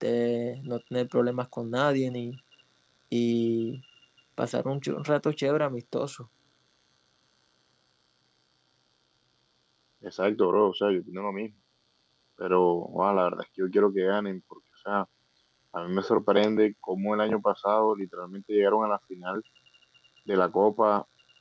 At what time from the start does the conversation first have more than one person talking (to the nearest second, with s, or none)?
none